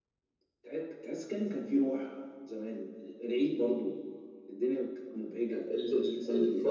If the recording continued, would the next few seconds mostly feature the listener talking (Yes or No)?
Yes